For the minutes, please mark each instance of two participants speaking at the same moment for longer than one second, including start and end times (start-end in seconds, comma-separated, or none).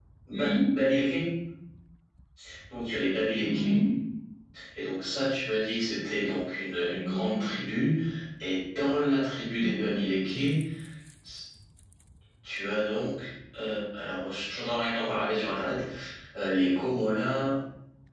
none